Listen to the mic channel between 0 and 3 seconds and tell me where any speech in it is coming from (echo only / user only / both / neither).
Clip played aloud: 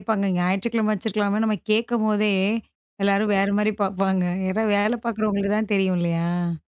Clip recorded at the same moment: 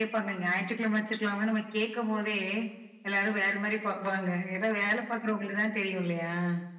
echo only